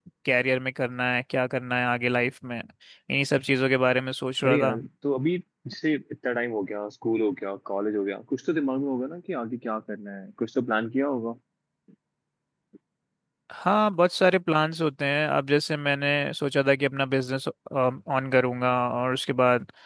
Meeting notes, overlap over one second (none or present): none